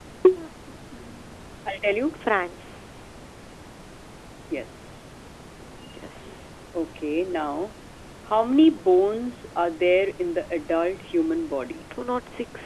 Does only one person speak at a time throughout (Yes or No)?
Yes